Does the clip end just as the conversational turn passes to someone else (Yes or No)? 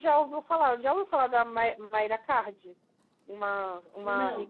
No